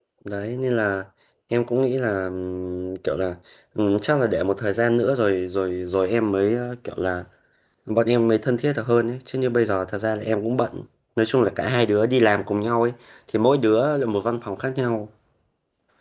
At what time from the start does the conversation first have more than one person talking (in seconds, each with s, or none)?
none